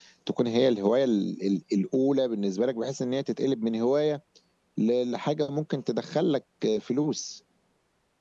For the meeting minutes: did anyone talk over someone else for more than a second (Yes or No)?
No